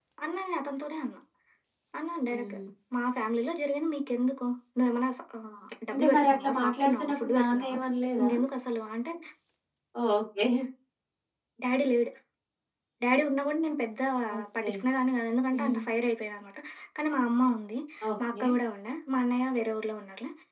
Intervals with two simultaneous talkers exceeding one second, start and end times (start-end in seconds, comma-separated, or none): 5.9-7.8